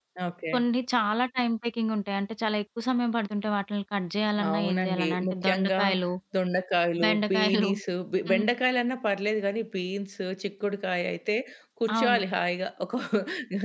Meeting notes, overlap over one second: present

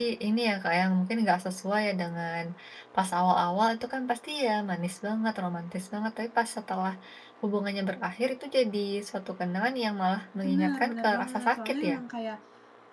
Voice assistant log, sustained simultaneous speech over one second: present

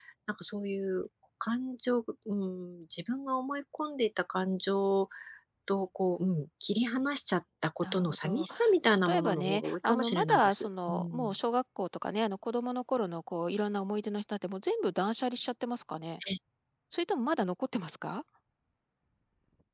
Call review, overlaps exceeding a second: present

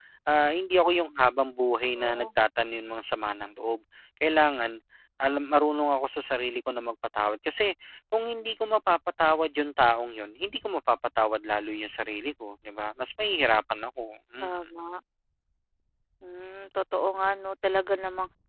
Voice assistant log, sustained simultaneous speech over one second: none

